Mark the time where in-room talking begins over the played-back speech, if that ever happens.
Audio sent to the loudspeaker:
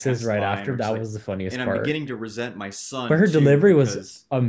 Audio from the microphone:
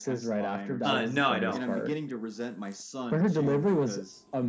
0.8 s

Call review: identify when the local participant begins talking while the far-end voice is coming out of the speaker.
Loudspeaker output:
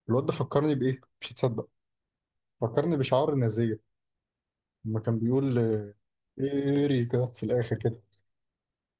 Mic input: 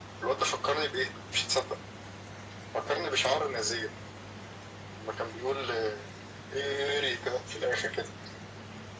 none

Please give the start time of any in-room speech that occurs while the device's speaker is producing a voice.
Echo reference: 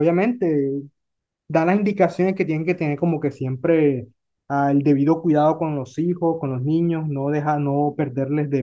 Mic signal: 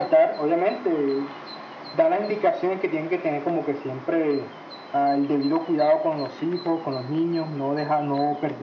none

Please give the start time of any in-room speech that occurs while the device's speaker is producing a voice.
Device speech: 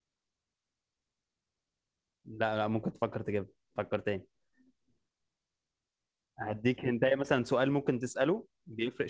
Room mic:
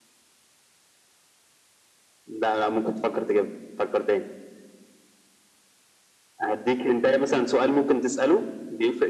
none

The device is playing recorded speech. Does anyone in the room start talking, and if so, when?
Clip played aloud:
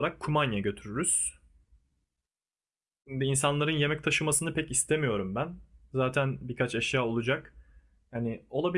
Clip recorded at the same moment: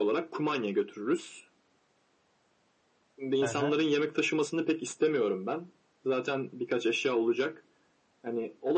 3.4 s

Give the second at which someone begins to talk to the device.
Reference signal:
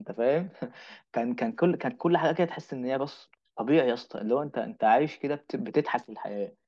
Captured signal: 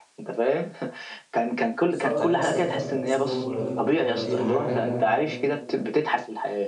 1.9 s

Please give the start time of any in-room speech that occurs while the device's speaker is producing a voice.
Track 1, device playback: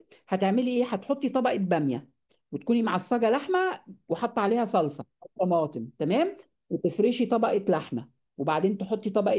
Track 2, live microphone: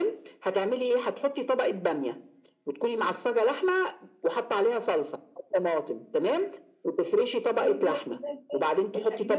7.5 s

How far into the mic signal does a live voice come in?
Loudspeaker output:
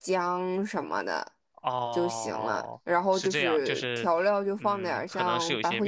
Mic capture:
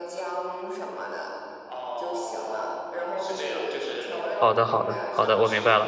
4.4 s

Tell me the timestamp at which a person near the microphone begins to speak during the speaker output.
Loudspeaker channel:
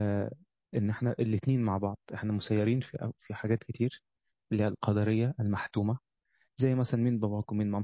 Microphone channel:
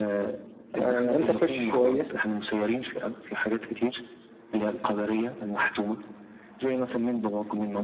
0.8 s

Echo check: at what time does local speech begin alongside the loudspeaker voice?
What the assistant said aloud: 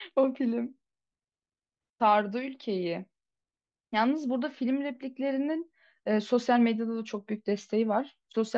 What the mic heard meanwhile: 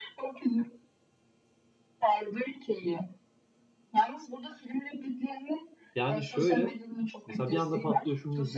6.0 s

